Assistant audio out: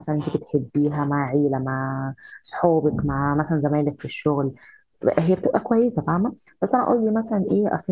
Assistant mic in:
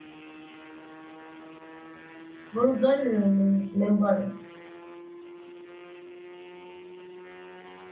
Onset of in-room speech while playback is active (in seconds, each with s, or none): 2.5 s